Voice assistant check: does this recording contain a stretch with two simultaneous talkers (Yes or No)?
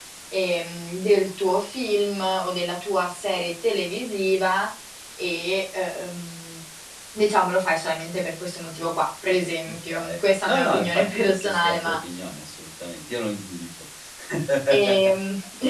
Yes